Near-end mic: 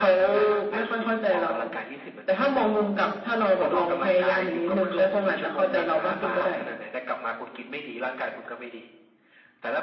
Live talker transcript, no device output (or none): none